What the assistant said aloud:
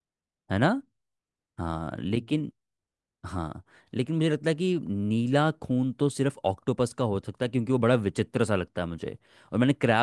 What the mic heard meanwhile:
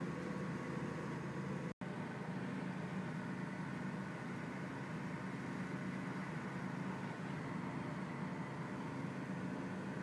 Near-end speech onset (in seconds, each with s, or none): none